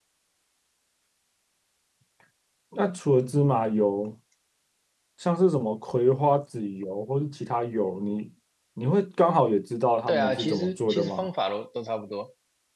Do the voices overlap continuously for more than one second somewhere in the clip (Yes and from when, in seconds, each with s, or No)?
Yes, from 10.1 s